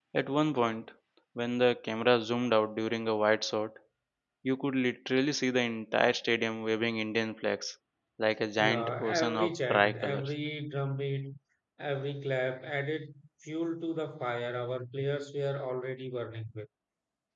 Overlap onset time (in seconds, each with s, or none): 8.6 s